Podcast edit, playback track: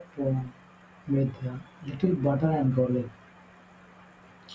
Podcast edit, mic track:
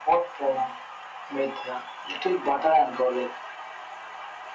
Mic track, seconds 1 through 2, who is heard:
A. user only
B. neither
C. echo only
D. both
C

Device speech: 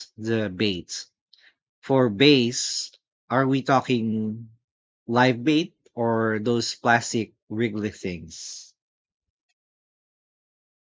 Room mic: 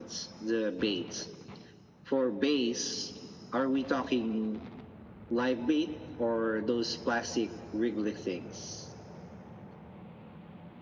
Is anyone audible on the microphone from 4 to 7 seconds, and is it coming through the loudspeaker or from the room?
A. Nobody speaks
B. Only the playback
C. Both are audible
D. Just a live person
B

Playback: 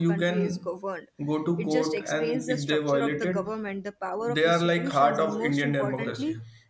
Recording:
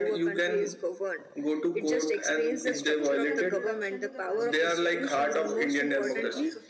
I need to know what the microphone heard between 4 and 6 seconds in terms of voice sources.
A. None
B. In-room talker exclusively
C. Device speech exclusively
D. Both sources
D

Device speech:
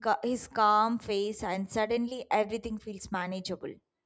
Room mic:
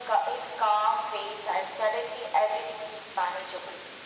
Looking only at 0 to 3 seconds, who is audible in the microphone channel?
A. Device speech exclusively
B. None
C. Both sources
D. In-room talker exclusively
A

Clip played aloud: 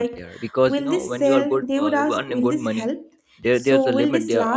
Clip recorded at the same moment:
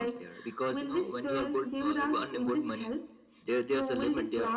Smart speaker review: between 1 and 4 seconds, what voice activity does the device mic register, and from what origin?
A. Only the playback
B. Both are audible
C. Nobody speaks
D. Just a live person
A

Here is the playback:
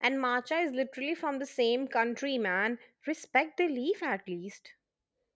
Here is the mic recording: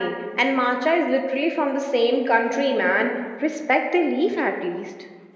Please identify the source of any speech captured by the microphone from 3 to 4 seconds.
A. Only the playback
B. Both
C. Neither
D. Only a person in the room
A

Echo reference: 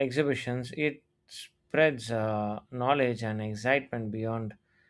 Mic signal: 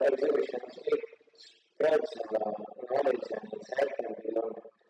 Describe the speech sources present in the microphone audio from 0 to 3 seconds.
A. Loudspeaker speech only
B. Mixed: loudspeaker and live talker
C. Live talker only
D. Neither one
A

